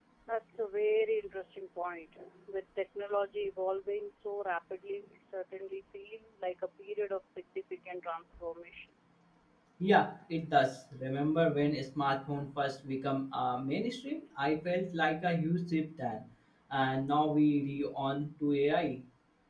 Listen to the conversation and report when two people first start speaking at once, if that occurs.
none

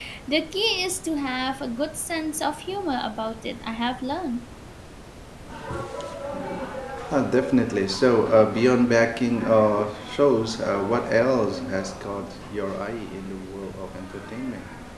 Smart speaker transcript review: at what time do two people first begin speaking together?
none

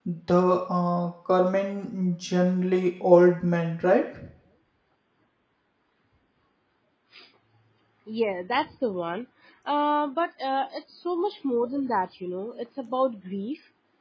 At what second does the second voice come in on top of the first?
none

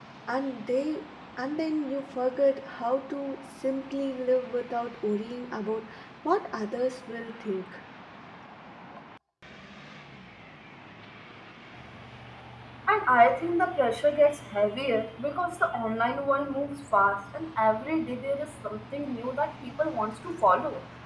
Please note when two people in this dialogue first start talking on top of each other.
none

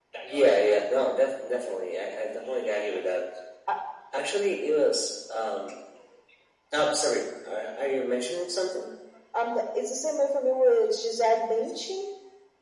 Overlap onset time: none

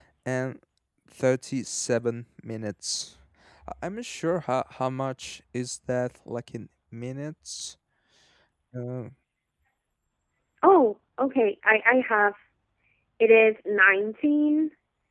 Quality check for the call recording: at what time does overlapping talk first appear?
none

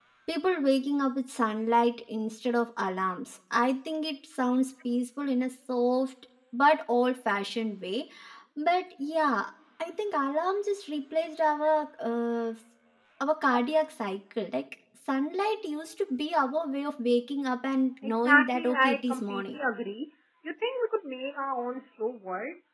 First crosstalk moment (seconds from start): 18 s

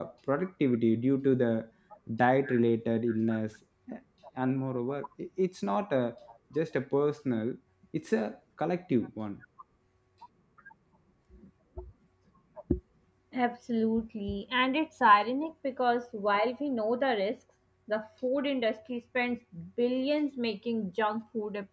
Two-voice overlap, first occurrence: none

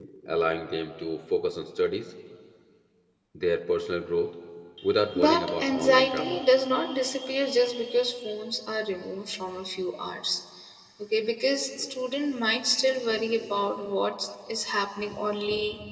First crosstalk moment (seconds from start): 5 s

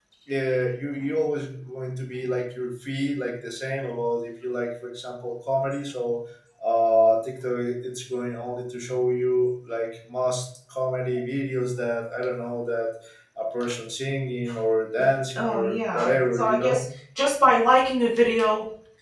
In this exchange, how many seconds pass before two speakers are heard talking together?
15 s

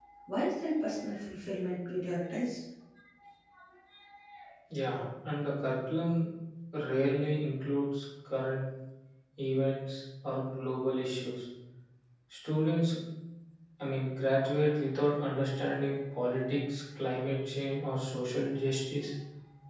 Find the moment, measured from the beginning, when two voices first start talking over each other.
none

